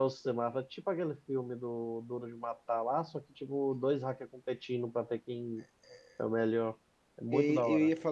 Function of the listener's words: taking over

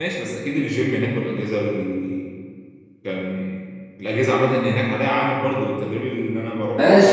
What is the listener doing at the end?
taking over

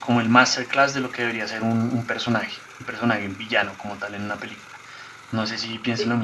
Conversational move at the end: taking over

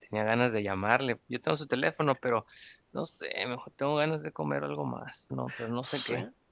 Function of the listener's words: taking over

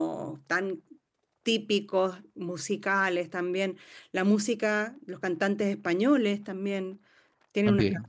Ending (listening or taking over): listening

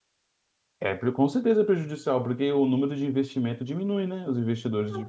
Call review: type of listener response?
taking over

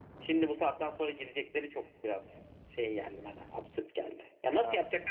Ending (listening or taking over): listening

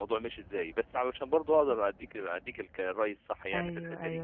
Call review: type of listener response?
taking over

